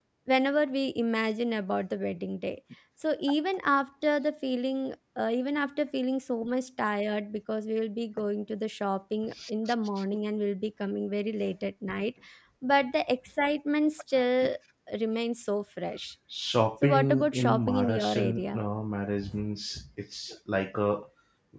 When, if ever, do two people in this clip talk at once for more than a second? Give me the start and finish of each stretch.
16.8-18.6

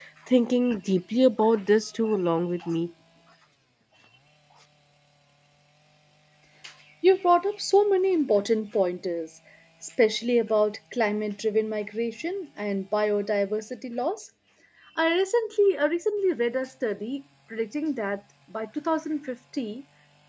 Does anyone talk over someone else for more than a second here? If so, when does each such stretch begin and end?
none

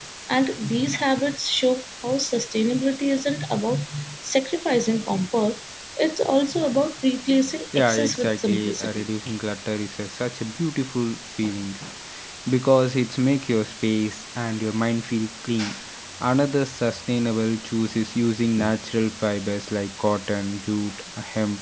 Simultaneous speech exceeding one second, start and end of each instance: 7.8-9.0

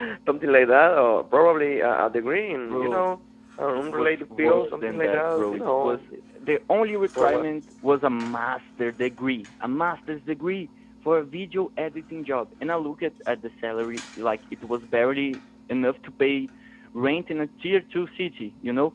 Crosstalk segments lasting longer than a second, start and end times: 3.8-6.1

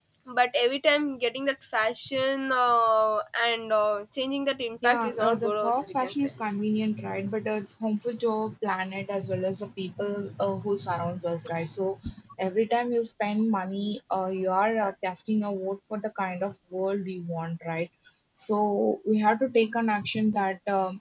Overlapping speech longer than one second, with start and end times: 4.8-6.3

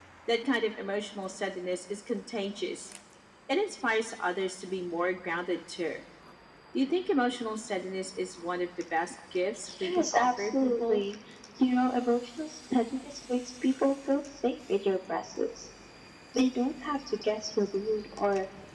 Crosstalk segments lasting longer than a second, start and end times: 9.8-11.0

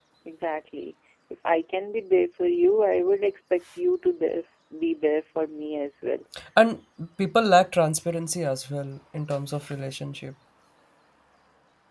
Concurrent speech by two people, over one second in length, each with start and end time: none

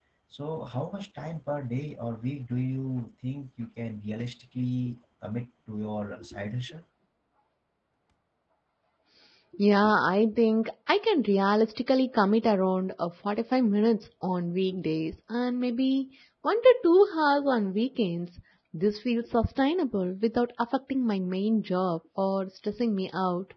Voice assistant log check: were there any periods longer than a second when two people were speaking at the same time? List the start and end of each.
none

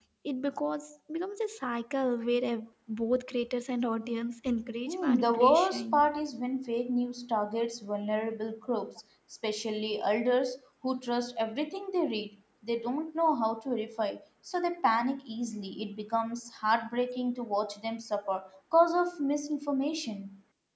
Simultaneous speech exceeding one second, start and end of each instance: 4.9-6.1

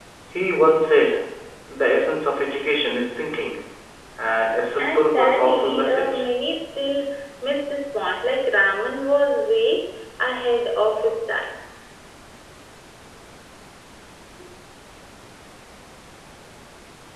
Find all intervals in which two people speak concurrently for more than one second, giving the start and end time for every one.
4.8-6.3

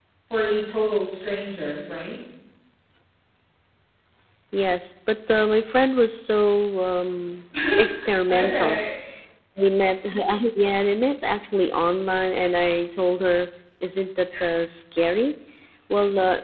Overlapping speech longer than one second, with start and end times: none

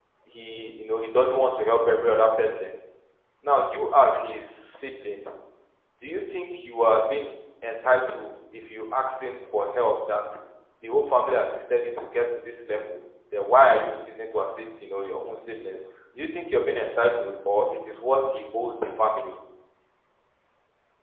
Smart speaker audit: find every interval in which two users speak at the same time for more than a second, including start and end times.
none

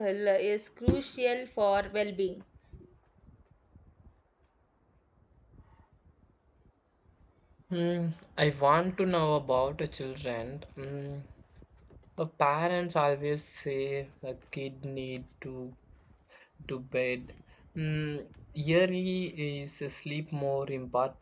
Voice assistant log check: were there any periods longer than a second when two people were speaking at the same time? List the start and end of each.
none

